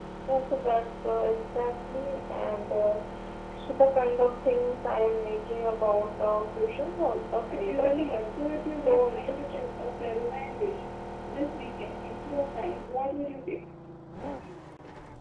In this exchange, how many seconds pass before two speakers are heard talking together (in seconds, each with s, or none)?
7.5 s